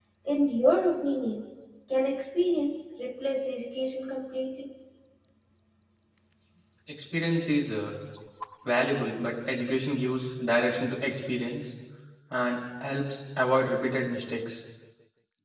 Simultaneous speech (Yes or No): No